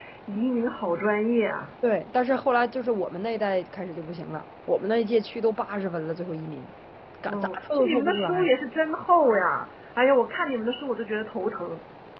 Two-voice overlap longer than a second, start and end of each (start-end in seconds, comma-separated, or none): 7.3-8.5